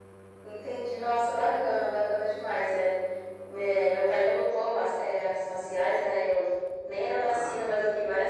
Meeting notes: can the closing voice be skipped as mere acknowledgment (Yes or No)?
Yes